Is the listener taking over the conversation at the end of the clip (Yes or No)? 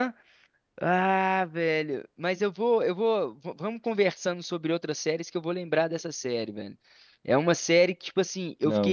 No